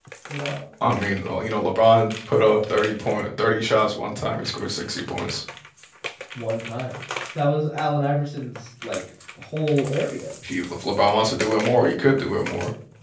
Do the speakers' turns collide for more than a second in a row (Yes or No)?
No